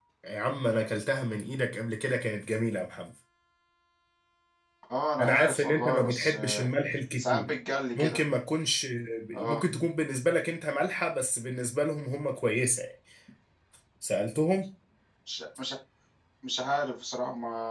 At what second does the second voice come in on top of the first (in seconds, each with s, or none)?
5.2 s